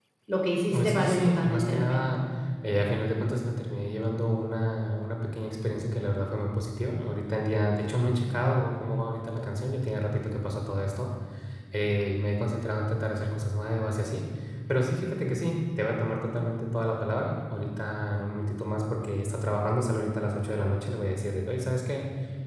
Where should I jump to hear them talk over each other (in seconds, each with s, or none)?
0.7 s